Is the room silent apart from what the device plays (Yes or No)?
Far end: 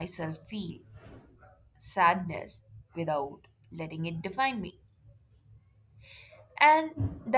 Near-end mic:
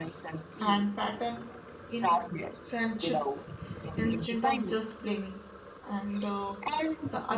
No